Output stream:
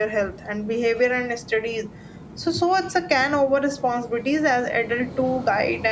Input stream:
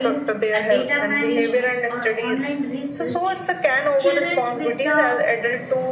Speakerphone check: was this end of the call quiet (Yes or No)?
No